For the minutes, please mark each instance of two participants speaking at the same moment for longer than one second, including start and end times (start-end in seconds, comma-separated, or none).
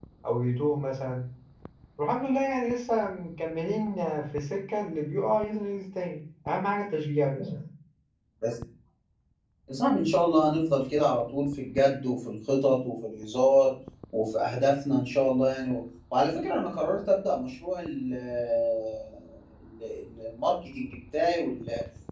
none